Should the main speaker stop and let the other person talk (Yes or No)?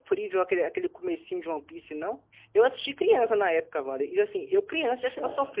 No